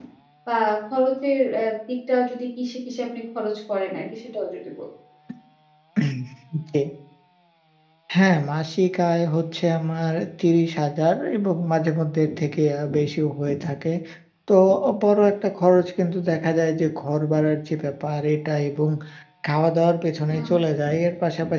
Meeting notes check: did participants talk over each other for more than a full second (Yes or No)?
No